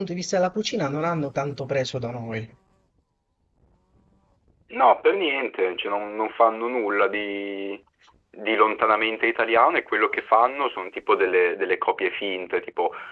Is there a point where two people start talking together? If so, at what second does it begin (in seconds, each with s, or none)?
none